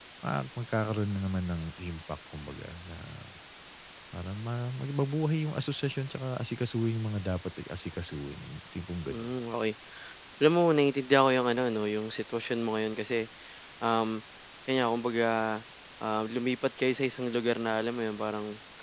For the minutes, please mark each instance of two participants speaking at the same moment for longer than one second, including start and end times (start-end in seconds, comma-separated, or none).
none